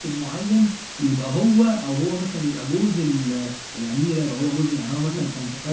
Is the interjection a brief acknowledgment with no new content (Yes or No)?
No